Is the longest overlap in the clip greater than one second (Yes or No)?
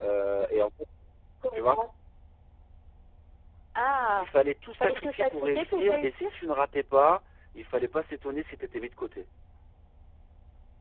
Yes